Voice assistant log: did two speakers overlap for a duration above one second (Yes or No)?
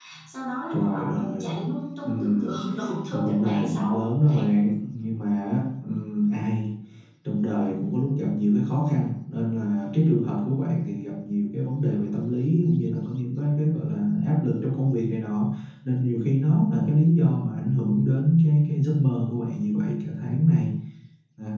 Yes